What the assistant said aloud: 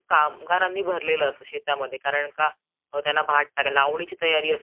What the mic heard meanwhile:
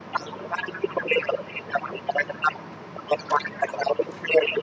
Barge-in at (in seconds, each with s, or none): none